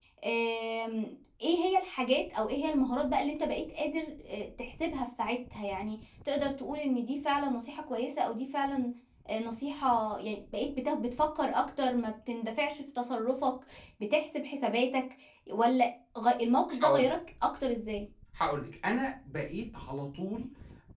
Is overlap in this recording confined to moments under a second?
Yes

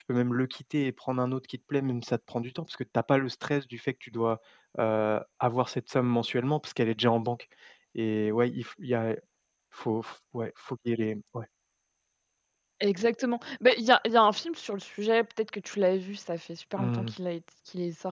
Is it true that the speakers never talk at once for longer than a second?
Yes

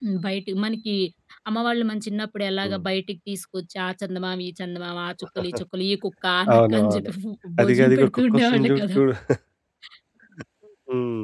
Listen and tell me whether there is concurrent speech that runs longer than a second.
Yes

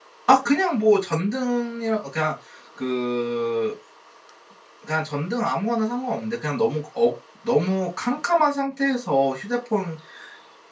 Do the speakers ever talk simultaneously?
No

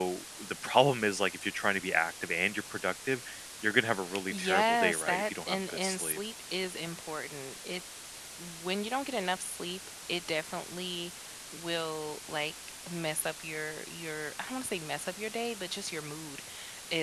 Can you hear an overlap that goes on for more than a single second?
Yes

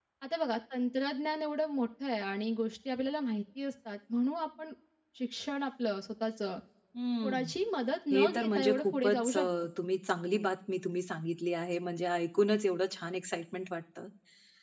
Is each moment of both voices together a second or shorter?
No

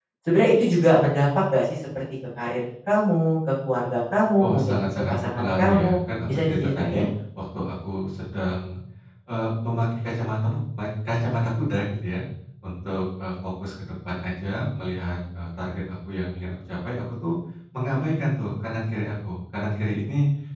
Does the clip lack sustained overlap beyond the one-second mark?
No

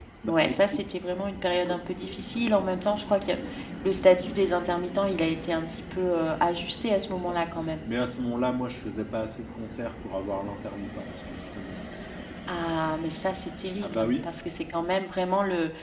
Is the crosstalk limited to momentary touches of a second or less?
Yes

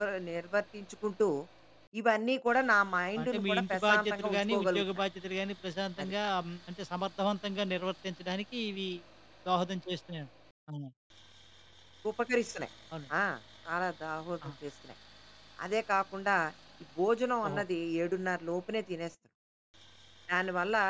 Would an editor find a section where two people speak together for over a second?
Yes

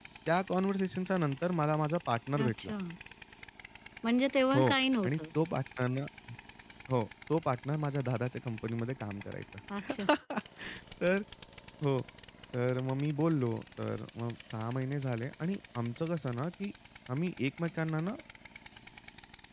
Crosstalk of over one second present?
No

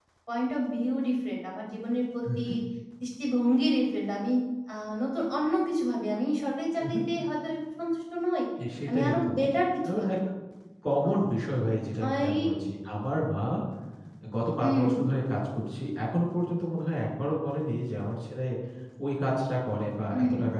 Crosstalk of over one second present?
No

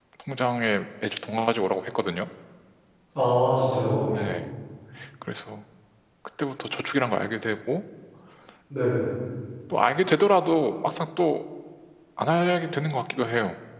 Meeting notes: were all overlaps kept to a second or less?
Yes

